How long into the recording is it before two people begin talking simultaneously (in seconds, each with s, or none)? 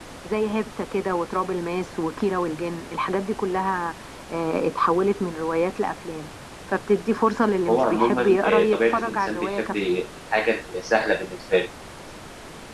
7.7 s